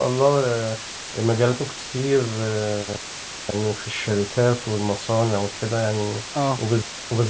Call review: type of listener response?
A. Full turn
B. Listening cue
B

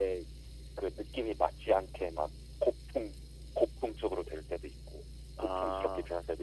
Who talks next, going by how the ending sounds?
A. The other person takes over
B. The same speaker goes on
B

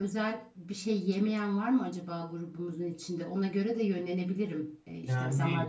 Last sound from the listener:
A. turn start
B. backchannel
B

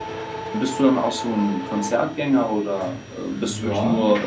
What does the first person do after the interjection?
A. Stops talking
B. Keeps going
A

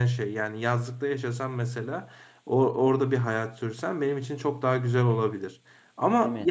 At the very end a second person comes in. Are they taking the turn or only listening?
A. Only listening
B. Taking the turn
A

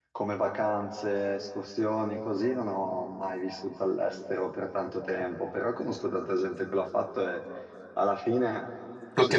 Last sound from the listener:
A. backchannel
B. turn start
A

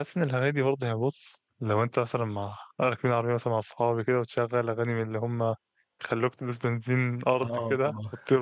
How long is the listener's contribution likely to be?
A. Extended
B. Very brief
B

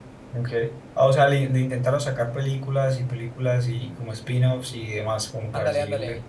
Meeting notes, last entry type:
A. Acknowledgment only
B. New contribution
B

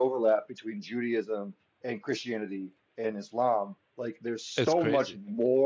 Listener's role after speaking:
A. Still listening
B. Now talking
A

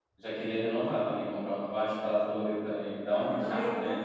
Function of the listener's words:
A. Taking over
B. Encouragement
A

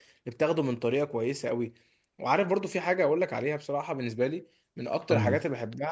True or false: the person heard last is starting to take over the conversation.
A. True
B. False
B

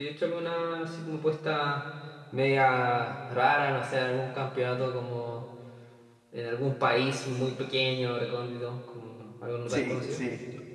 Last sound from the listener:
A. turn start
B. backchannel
A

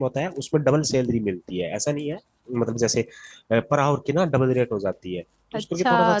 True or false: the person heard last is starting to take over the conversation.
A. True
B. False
A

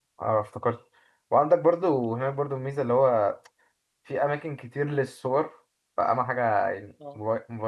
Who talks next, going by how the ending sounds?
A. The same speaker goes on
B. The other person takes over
A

